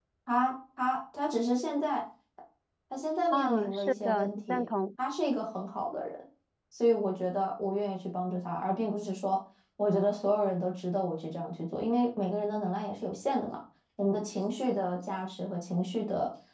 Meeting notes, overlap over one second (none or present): present